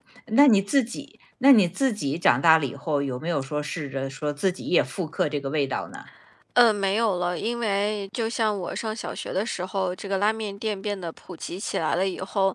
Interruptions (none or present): none